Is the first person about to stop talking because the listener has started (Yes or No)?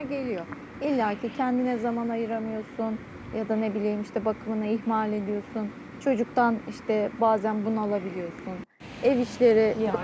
No